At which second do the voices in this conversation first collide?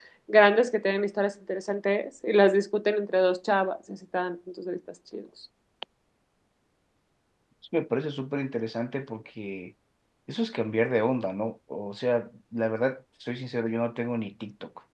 none

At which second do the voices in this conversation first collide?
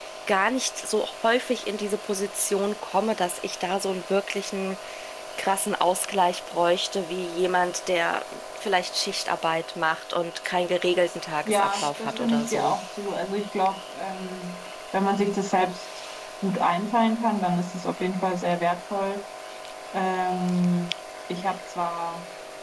11.4 s

